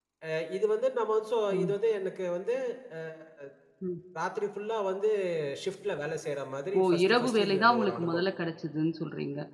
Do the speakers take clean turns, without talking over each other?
No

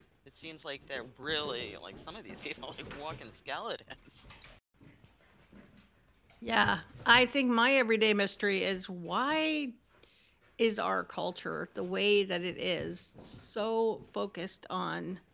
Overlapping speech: No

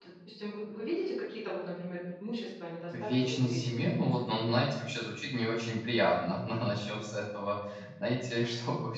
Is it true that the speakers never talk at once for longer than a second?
No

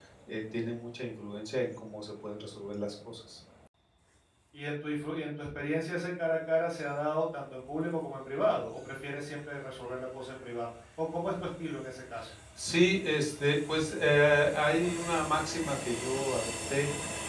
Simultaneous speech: No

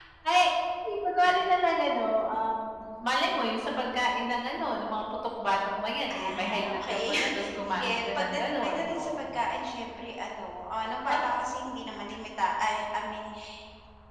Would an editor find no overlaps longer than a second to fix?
No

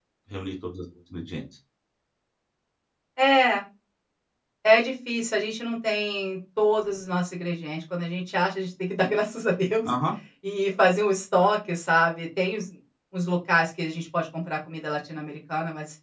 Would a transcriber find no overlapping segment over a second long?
Yes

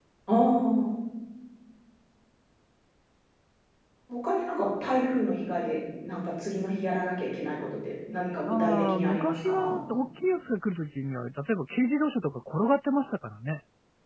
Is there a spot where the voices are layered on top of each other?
Yes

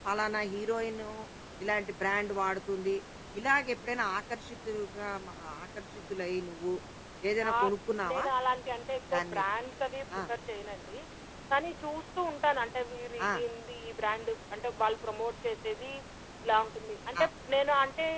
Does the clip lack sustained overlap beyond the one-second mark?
Yes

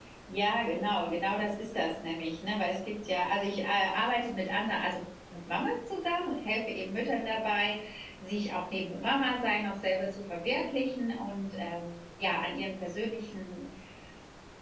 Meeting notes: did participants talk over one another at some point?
No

